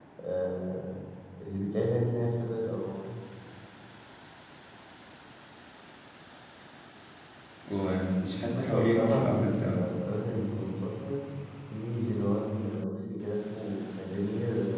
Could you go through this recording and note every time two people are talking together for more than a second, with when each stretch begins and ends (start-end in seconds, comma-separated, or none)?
8.5-9.8